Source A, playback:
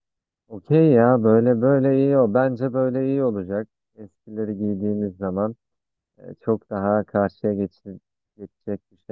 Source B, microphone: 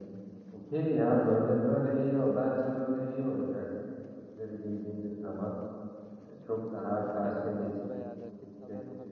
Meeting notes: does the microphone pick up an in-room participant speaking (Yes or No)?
Yes